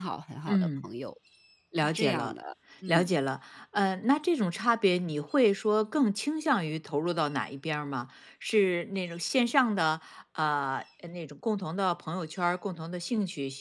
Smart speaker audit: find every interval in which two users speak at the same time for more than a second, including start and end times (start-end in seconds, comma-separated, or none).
none